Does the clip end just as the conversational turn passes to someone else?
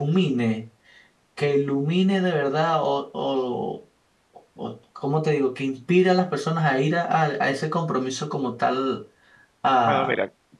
Yes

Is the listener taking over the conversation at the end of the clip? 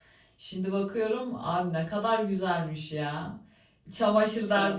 No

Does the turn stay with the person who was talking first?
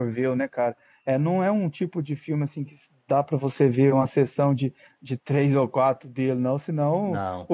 Yes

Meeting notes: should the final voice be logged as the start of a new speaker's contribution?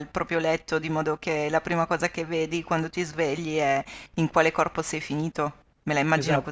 Yes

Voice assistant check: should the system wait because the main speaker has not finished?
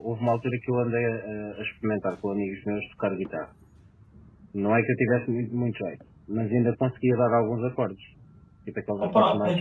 No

